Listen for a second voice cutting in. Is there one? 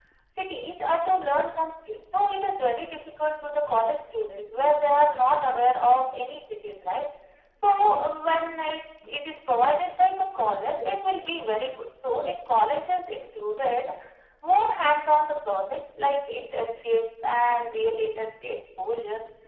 No

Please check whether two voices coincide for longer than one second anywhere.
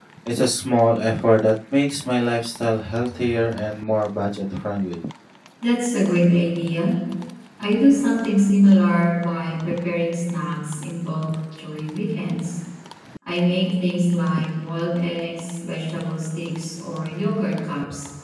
No

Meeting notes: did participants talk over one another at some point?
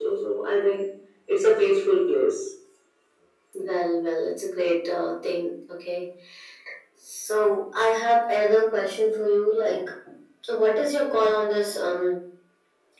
No

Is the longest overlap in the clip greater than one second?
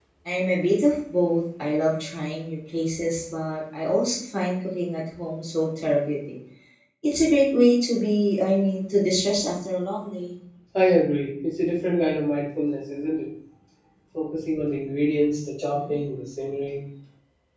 No

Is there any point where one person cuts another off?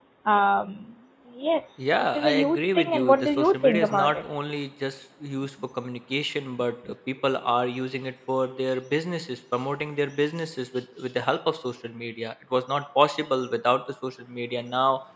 Yes, from 1.8 s

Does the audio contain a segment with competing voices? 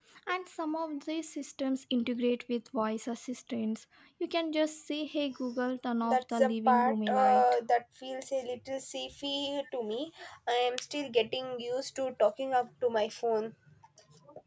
Yes, from 6.0 s

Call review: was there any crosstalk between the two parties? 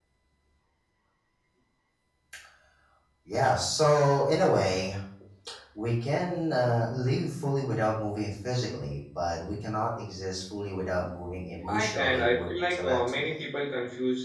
Yes, from 11.7 s

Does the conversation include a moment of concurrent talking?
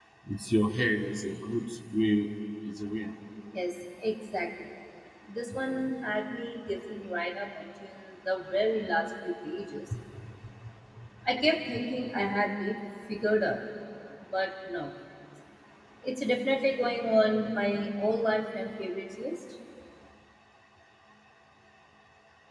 No

